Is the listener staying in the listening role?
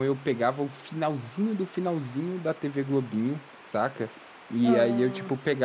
Yes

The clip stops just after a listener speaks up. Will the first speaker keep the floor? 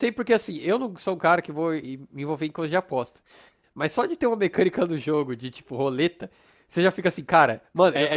No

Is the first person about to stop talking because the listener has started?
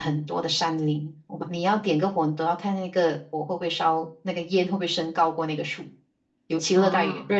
No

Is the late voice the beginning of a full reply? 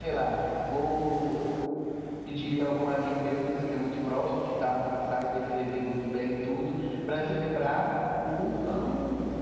No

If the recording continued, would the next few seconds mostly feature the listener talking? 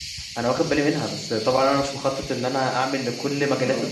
No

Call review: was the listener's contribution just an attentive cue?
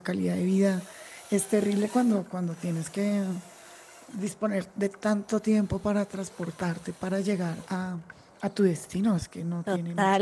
No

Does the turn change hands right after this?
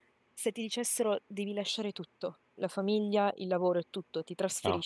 No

